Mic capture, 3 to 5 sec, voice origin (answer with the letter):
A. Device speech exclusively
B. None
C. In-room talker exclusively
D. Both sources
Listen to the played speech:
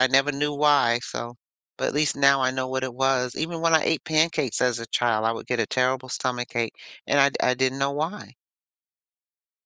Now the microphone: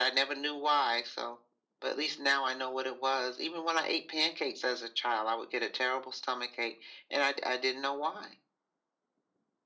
A